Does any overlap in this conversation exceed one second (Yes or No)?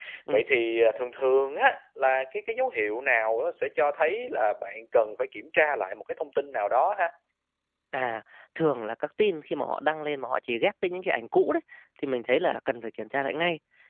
No